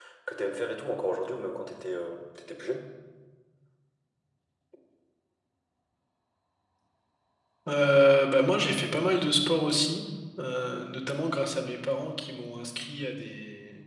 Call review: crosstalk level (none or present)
none